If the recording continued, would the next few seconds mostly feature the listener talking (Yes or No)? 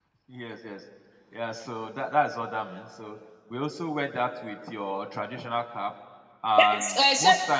Yes